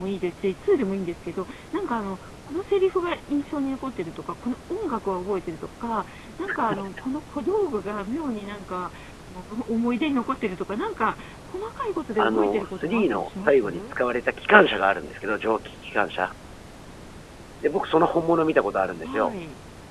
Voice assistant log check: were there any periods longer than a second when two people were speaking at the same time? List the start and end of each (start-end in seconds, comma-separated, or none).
12.2-13.9